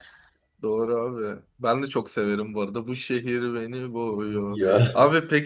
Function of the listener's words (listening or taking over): listening